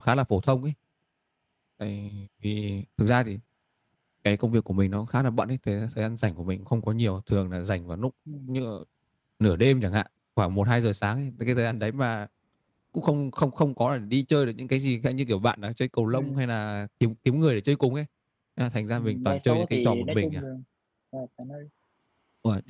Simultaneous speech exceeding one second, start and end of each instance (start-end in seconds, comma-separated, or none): 19.0-20.4